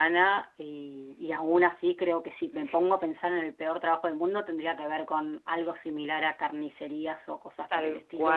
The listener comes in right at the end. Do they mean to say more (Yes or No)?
No